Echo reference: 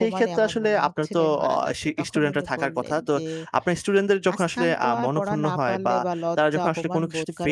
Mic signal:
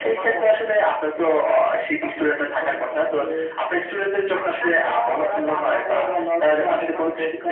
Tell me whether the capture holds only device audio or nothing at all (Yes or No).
Yes